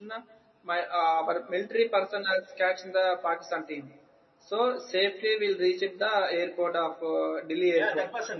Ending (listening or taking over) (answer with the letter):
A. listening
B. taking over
B